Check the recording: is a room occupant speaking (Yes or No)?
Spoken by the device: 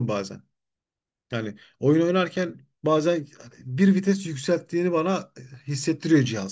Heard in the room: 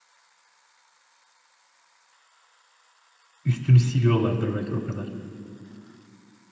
Yes